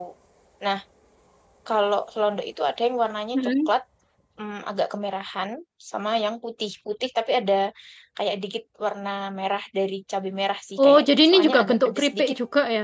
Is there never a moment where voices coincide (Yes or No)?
No